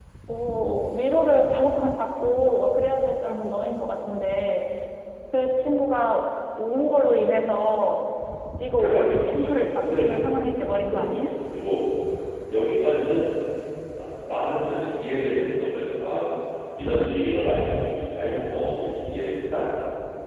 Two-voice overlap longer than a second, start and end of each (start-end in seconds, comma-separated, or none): 8.8-10.1